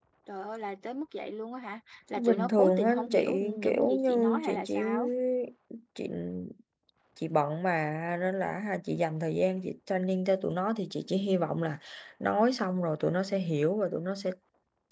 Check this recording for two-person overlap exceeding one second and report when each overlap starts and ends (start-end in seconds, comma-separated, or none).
2.2-4.8